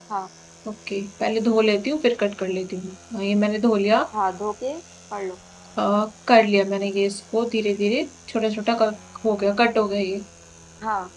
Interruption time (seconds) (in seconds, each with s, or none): none